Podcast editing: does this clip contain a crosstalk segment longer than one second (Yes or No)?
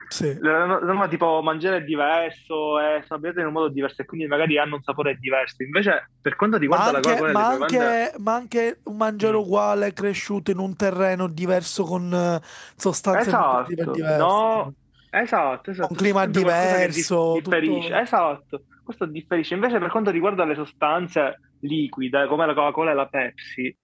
Yes